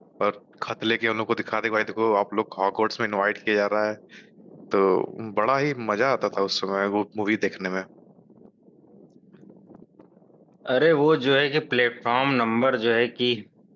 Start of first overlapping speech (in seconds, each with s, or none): none